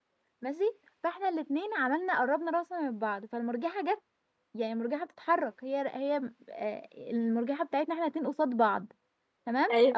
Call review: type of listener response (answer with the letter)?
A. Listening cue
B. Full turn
A